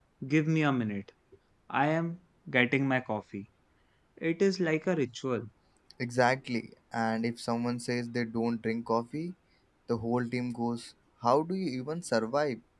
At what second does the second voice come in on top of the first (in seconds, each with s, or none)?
none